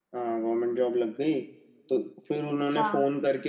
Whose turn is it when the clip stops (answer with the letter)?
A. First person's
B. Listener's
A